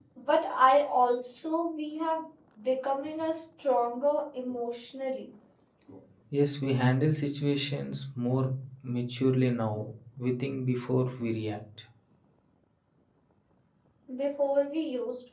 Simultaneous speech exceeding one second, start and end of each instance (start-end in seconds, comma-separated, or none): none